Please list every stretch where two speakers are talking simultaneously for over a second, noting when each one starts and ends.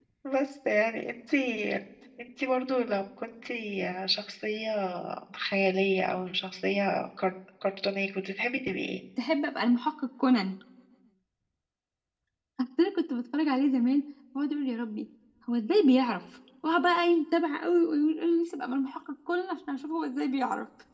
none

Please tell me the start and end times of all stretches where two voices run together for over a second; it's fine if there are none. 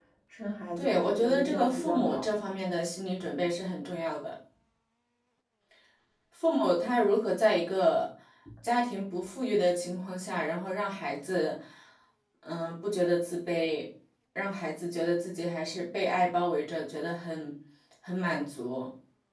0.8-2.3

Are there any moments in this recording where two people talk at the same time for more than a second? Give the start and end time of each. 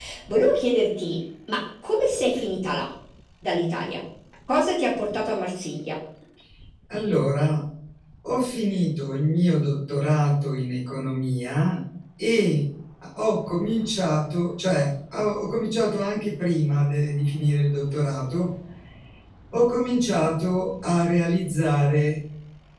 none

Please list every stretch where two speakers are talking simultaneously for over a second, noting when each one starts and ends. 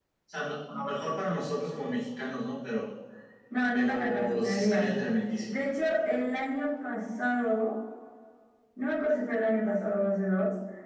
3.7-4.9

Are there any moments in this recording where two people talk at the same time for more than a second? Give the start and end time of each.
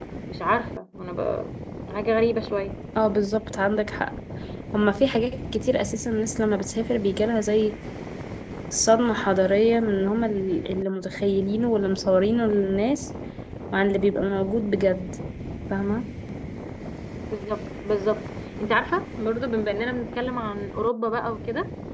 none

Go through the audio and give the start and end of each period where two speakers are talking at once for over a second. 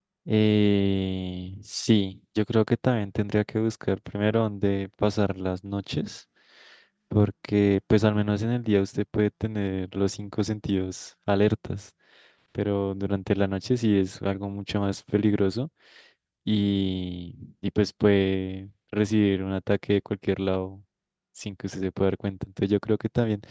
none

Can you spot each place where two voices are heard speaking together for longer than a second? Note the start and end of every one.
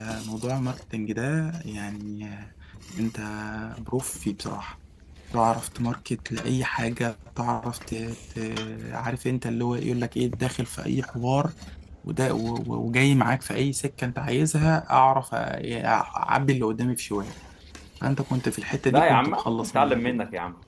18.9-20.2

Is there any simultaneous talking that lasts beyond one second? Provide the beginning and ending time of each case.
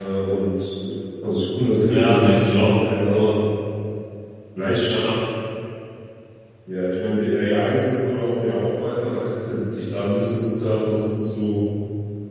1.8-3.3

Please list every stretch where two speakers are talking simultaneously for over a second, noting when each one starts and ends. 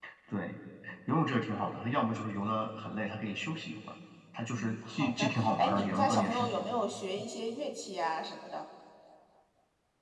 4.6-6.5

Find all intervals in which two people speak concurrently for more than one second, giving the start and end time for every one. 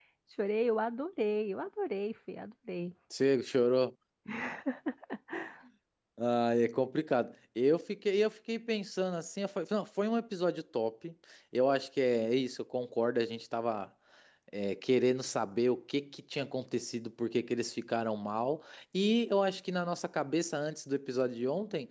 none

